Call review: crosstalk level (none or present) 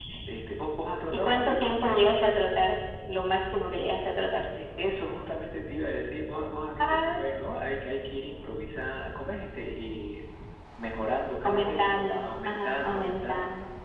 present